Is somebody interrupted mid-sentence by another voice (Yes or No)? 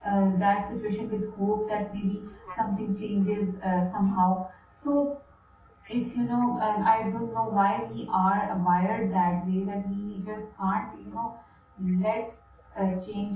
No